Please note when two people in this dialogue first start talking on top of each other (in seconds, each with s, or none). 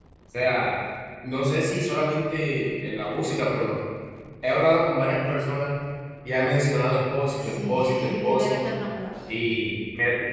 7.4 s